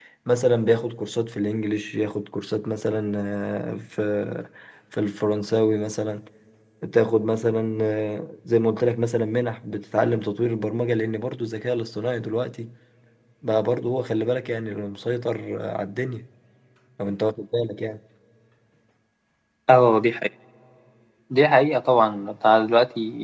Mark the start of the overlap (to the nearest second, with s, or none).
none